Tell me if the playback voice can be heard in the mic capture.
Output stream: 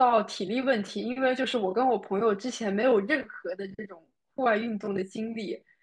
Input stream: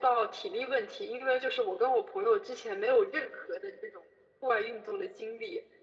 Yes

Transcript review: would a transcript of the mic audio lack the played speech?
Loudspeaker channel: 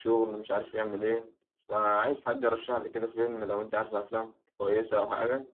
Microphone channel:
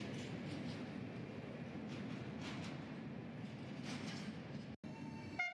Yes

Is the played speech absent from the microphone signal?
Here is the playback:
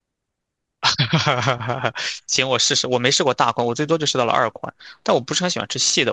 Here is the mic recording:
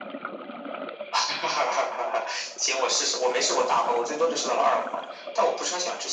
No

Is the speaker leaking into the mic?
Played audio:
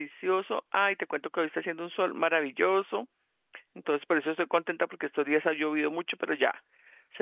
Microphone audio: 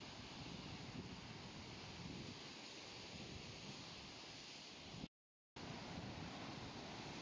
No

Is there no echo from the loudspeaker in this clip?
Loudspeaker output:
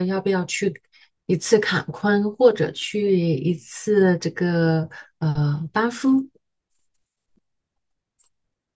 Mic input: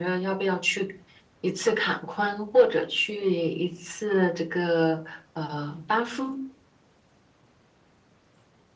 No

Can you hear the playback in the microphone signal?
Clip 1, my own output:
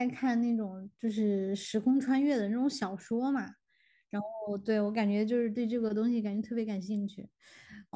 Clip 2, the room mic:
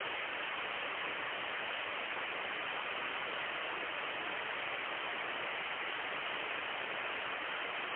No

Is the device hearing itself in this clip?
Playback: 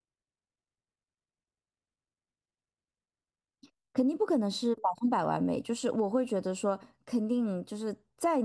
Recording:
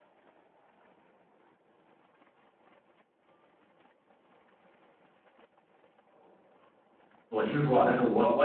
No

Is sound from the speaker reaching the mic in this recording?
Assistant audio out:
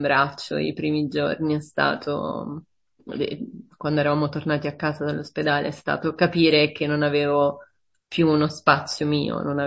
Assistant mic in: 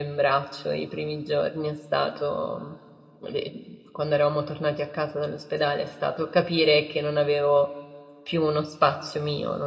Yes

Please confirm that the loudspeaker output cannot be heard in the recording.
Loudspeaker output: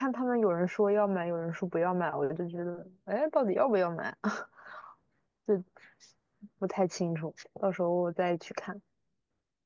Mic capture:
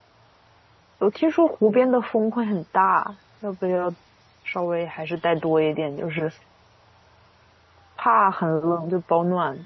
Yes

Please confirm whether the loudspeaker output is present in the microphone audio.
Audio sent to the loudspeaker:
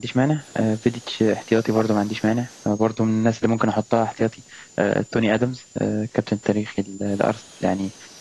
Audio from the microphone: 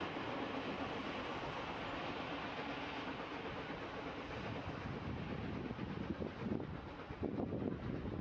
No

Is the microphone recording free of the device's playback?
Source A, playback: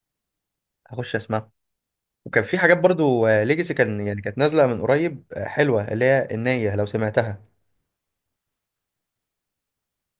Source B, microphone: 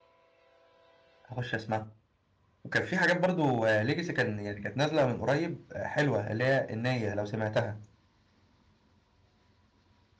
No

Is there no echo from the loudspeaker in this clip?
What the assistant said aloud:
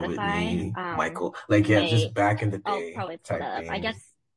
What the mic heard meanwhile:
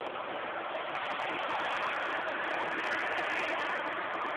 Yes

